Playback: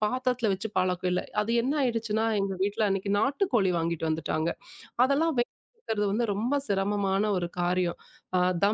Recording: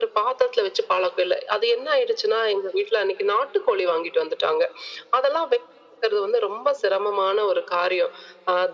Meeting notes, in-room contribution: none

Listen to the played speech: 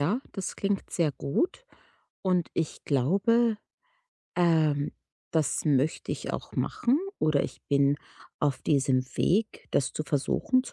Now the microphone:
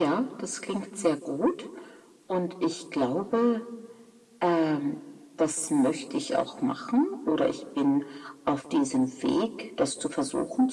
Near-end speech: none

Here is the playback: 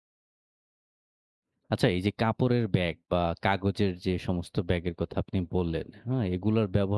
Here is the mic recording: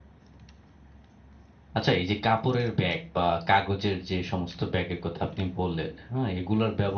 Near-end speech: none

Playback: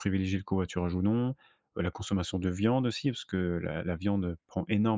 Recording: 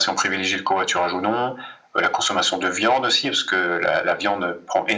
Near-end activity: none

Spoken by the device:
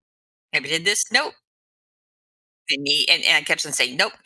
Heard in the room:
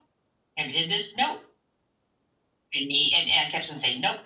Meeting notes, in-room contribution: none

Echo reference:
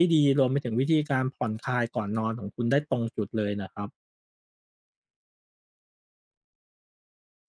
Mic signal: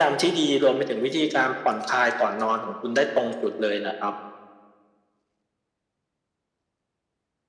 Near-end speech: none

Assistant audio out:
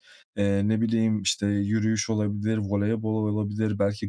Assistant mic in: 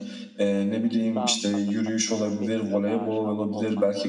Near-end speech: present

